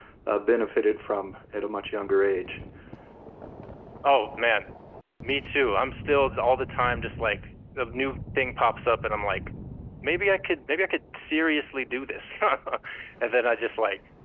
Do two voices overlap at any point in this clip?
No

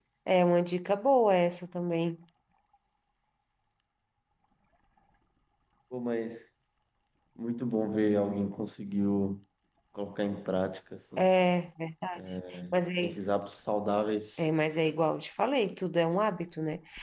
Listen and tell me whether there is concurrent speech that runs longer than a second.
No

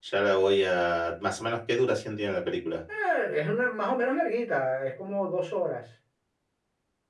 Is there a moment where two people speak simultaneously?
No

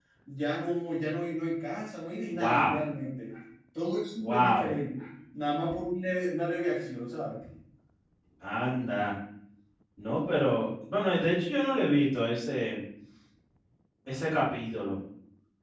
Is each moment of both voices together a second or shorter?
Yes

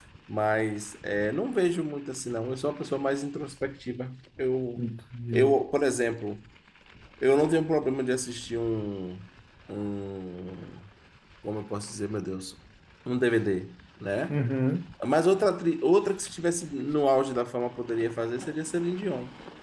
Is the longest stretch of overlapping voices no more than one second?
Yes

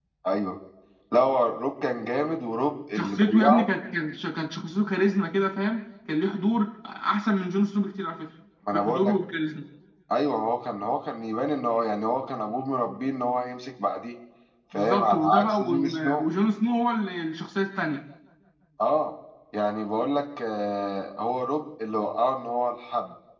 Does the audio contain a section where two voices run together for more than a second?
Yes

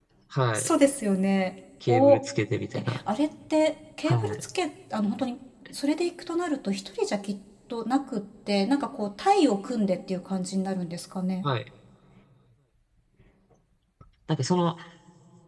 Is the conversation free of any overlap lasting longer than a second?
Yes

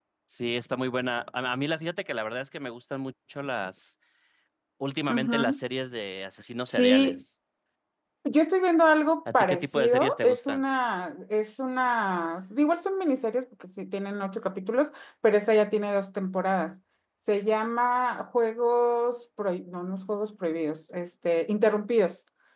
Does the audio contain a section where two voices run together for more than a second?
Yes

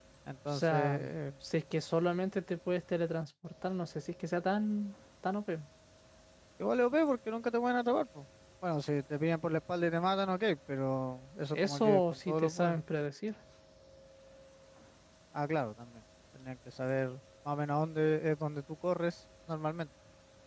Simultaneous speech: Yes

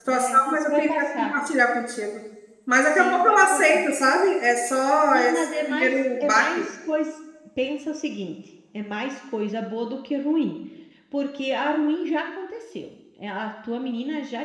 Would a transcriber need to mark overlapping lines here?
Yes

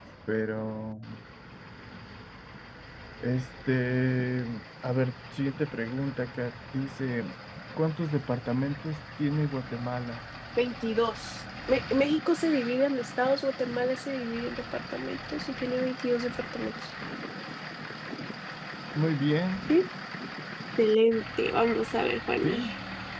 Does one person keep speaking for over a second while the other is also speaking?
No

